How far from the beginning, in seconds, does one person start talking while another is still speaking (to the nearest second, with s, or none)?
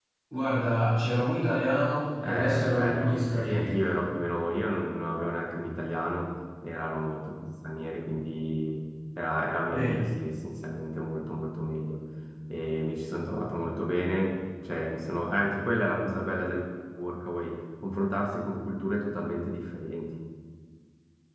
2 s